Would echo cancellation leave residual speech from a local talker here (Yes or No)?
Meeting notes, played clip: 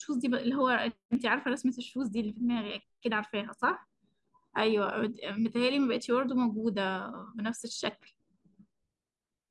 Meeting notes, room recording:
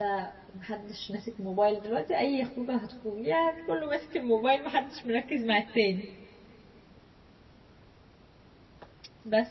Yes